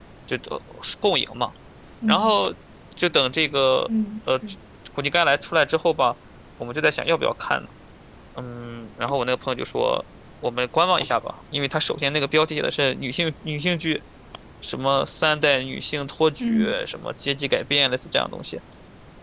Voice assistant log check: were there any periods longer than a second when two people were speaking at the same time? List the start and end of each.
none

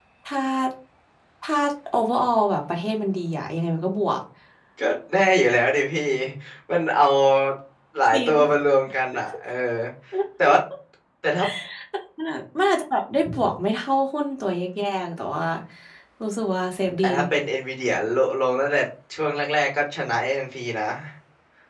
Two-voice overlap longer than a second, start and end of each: none

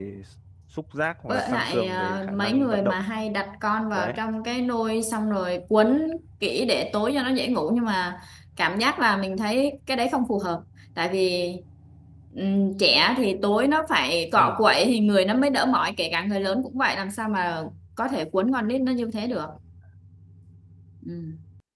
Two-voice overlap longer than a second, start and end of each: 1.3-3.0

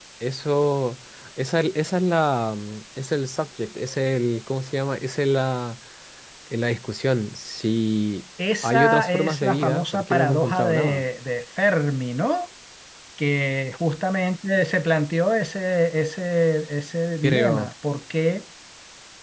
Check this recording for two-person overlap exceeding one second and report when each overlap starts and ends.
8.6-11.0

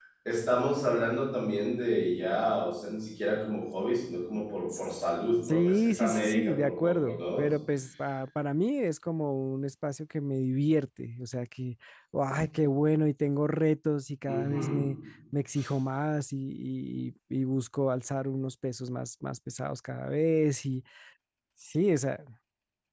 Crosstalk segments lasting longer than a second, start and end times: 5.5-7.5

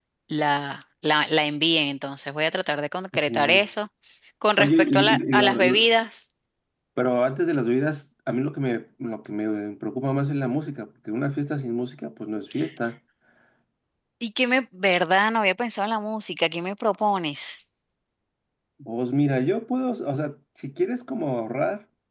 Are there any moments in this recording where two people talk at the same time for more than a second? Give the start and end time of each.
4.6-5.9

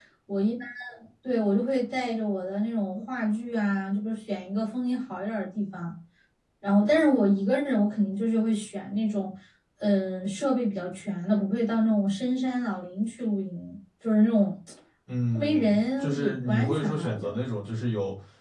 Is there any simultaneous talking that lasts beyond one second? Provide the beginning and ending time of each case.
15.3-17.4

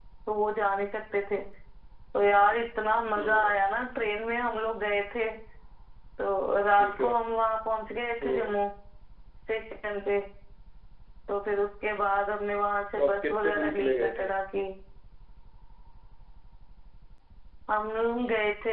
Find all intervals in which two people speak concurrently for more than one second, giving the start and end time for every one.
12.9-14.3

